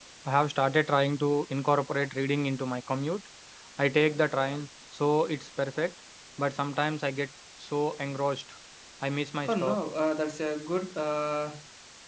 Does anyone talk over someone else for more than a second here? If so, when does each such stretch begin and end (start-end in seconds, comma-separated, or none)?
none